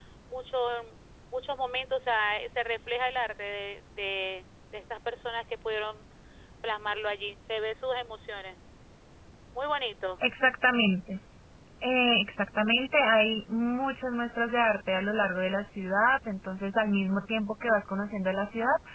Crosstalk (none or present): none